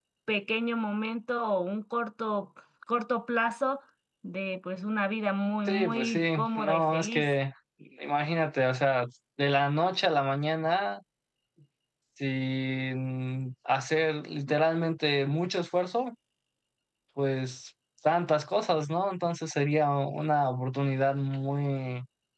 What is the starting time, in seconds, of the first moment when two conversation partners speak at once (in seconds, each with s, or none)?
5.7 s